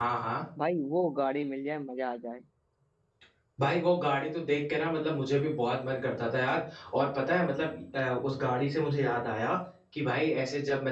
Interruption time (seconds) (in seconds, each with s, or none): none